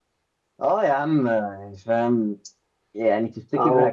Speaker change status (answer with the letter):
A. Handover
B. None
B